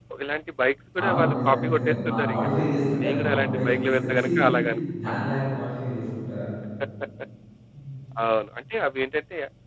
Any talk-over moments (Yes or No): Yes